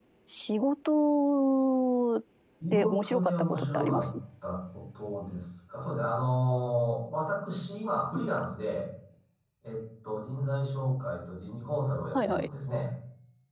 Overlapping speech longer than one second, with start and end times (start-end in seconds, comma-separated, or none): 2.7-4.1